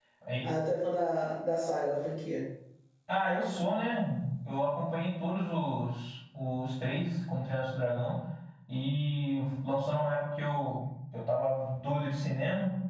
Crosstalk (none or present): none